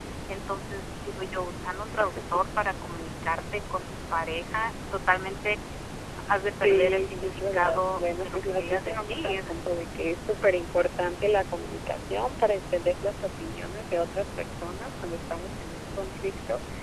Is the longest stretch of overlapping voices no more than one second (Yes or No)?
No